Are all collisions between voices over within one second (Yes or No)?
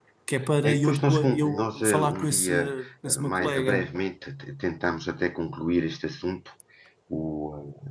No